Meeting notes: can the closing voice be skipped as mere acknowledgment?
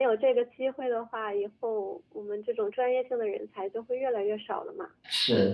No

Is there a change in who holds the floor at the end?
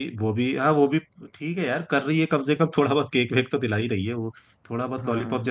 Yes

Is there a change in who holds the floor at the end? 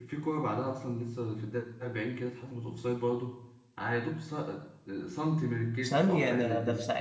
Yes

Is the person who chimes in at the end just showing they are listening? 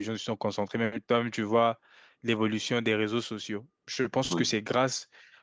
Yes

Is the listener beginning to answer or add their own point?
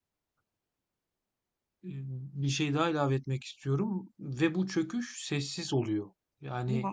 No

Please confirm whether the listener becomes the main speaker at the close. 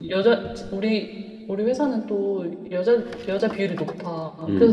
No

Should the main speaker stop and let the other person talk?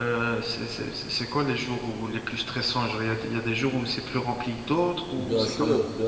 Yes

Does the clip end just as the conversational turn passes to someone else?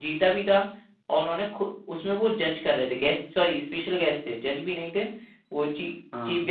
No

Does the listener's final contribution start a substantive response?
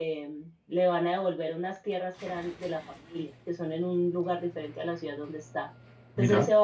No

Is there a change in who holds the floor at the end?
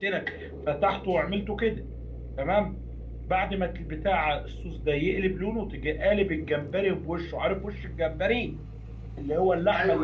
No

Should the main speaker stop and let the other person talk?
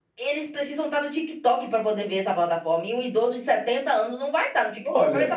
Yes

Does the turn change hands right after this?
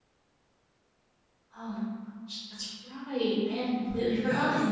Yes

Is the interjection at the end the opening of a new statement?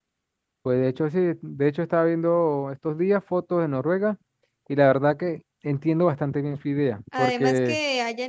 Yes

